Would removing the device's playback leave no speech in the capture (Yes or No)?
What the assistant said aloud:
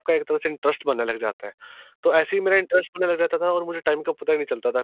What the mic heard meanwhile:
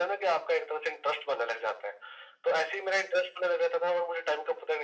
Yes